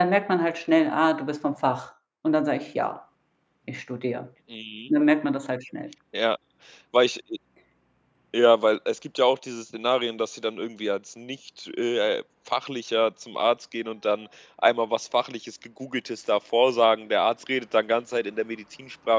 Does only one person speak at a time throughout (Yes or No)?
Yes